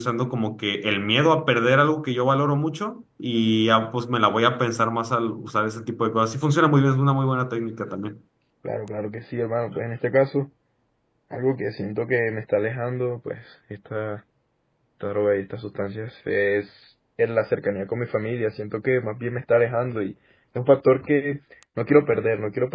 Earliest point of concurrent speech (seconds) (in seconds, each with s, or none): none